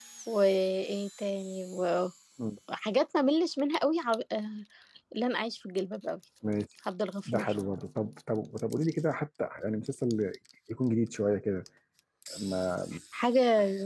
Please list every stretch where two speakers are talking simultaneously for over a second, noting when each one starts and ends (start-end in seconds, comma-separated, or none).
none